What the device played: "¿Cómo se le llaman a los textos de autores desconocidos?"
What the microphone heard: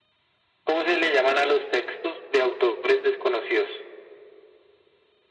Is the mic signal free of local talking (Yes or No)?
Yes